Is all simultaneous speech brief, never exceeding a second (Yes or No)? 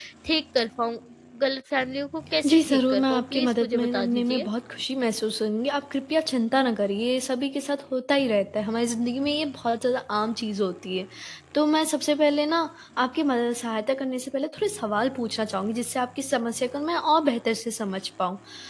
No